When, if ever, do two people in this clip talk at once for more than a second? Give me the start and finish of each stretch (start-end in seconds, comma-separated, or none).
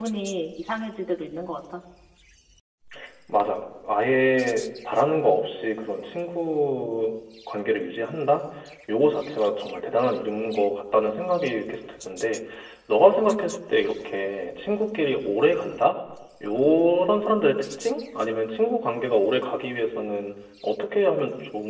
none